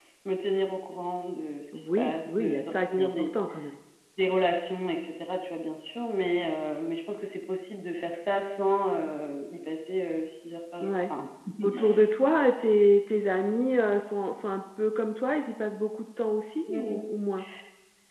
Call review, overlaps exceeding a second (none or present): present